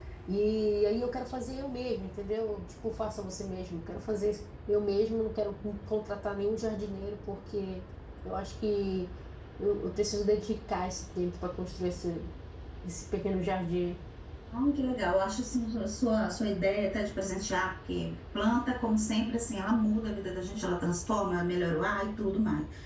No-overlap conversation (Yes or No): Yes